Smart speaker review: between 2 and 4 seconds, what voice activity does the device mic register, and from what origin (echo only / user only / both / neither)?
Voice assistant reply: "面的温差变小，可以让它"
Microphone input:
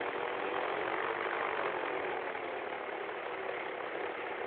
neither